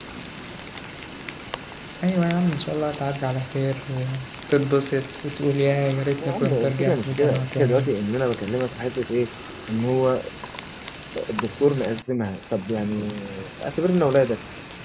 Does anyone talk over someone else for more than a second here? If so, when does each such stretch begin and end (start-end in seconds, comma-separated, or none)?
6.2-7.9